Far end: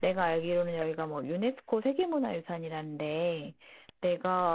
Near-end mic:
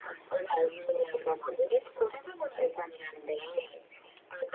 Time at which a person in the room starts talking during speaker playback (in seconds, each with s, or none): none